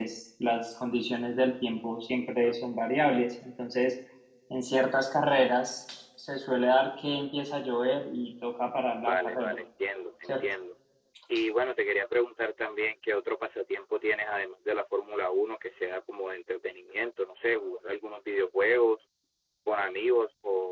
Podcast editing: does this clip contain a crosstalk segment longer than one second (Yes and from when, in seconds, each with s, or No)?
No